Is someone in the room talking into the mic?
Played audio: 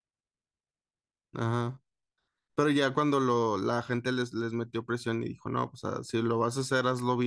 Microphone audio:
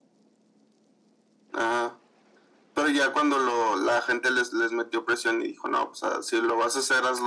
No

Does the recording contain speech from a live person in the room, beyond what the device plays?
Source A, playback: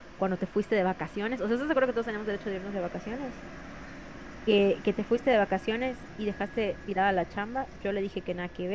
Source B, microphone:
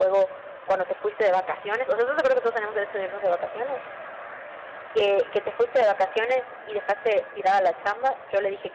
No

